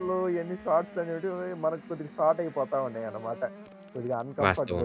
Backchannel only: No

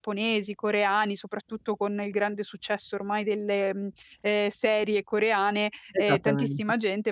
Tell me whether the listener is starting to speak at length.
No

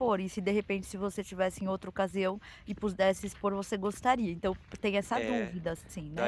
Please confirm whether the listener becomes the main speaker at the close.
Yes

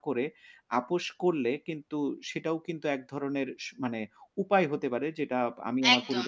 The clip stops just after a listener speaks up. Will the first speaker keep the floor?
No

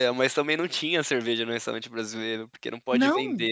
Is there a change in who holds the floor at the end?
No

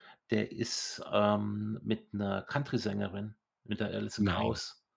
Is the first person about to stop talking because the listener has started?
No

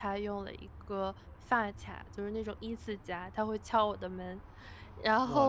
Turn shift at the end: No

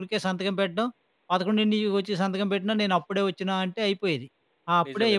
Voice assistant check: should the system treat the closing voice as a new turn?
Yes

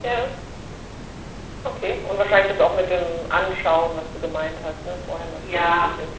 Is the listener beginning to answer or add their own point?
Yes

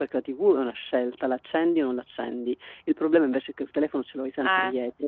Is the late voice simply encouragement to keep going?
Yes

